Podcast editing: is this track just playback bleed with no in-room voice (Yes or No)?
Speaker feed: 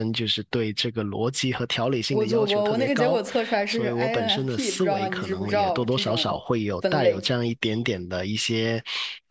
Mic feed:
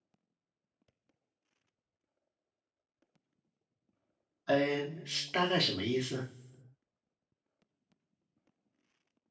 No